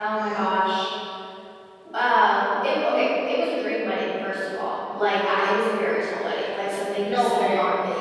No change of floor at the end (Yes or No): Yes